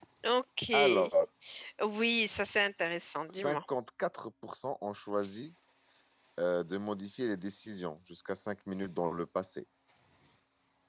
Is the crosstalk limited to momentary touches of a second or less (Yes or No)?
Yes